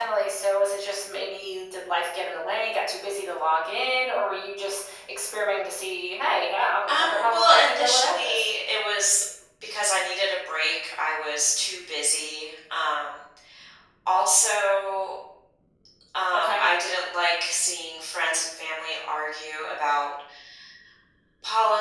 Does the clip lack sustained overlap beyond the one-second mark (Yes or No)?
No